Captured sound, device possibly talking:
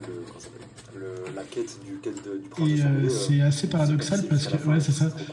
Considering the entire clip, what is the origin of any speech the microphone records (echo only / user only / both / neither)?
both